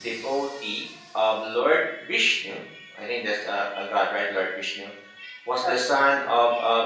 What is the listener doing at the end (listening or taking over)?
listening